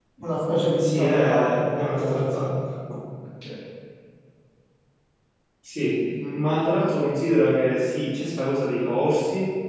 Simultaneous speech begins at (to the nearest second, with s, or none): 1 s